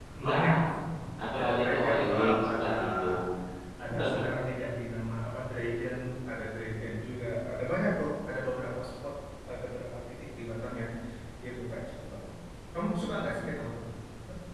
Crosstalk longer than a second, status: present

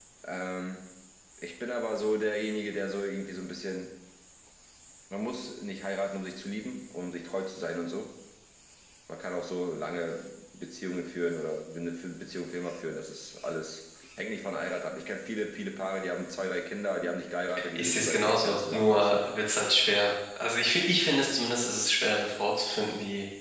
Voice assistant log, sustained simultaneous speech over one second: present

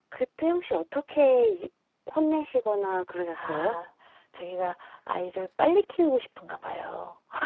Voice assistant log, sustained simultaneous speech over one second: none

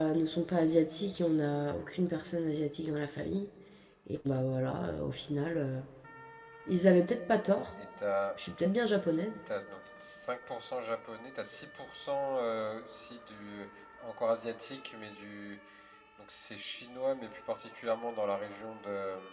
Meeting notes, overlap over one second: none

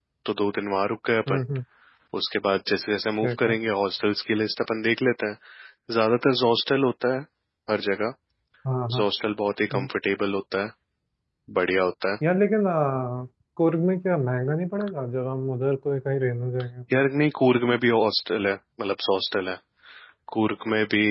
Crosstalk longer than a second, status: none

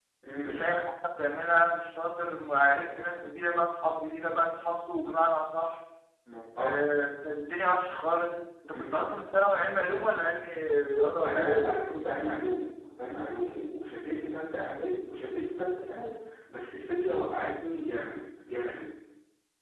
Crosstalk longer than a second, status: none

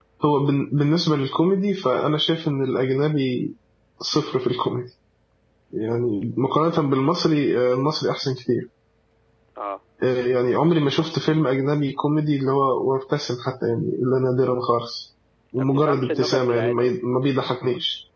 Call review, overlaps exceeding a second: present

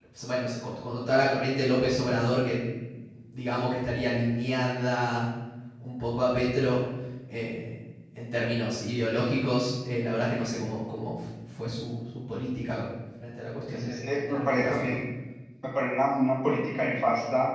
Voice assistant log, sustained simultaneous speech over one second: present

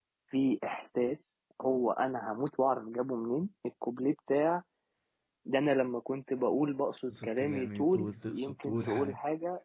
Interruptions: present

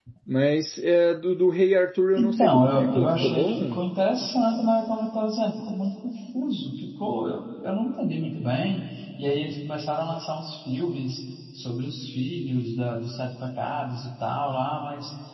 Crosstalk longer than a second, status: present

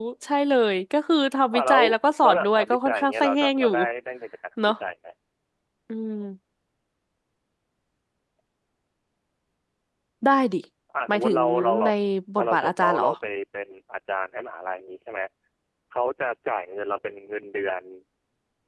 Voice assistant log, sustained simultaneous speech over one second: present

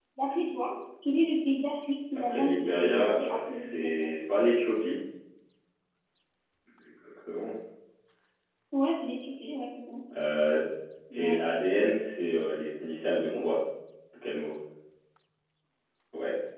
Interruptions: present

